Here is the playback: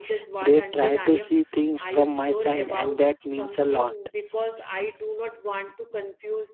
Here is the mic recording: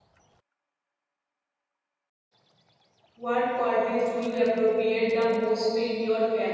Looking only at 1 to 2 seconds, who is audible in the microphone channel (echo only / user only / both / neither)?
neither